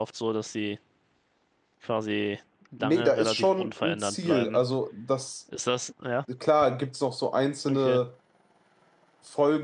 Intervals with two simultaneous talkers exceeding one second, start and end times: 2.8-4.6

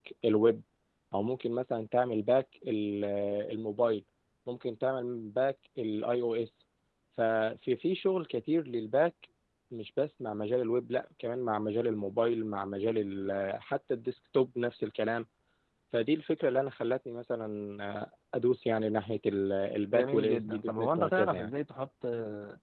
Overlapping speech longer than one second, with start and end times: 19.9-21.5

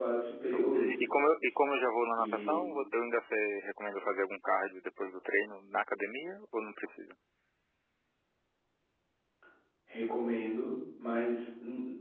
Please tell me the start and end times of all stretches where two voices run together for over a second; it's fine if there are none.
none

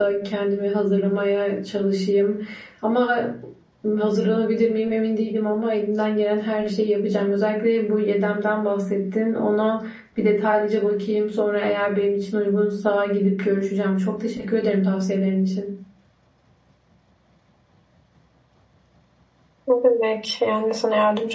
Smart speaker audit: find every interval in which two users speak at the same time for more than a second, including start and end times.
none

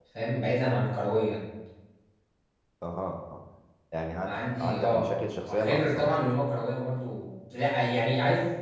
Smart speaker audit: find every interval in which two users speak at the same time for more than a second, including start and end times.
4.2-6.3

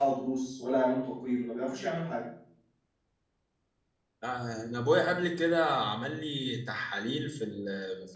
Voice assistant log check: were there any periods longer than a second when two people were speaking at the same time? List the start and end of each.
none

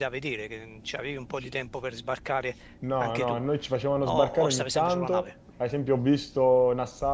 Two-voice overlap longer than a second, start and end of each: 4.0-5.3

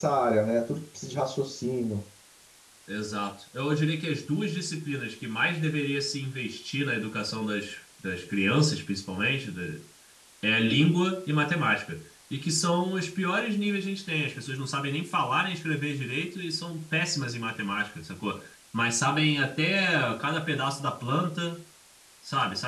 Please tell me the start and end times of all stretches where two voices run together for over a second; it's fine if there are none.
none

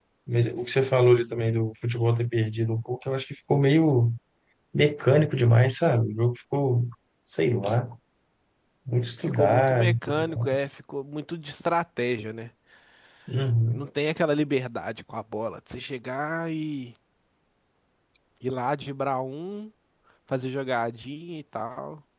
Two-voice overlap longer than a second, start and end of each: 9.2-10.6

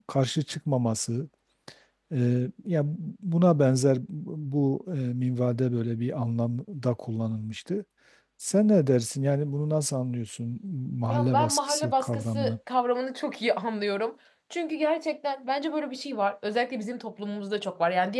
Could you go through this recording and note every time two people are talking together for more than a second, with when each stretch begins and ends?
11.1-12.5

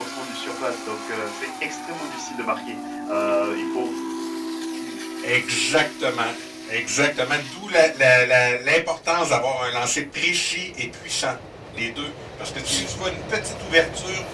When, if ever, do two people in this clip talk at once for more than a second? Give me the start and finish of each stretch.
none

